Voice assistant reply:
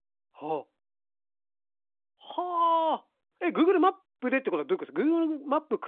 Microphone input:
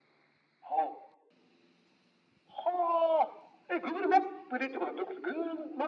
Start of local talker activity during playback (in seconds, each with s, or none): none